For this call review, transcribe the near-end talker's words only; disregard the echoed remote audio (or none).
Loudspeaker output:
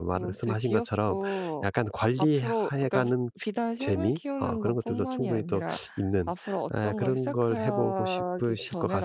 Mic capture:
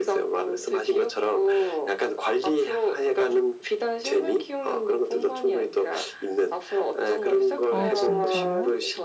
아 진짜요?